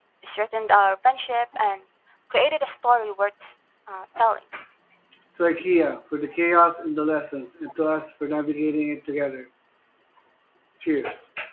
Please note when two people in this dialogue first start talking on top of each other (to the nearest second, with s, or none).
none